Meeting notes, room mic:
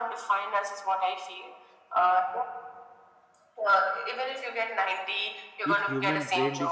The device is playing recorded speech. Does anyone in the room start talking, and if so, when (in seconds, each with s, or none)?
5.6 s